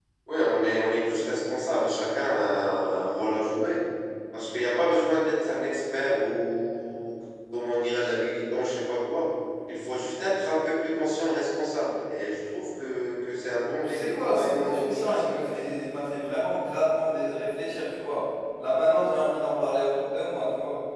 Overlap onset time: 14 s

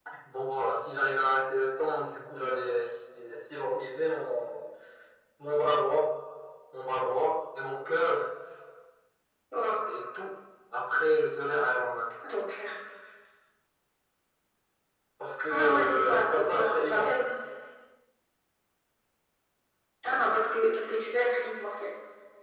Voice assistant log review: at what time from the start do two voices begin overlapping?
15 s

